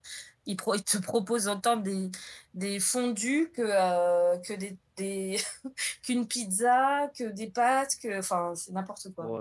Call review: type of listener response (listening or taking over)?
taking over